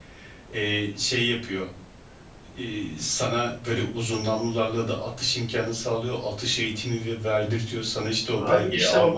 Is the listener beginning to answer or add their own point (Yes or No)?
Yes